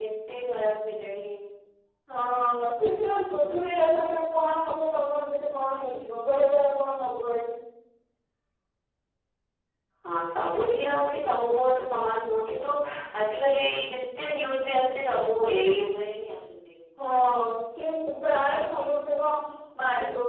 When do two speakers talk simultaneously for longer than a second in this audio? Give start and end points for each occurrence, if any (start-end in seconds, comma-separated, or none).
none